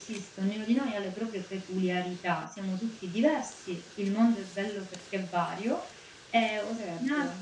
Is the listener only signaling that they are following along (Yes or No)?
Yes